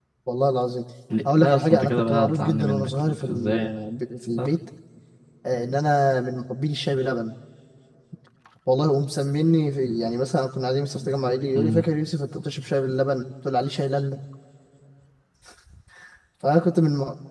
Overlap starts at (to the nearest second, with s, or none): 1 s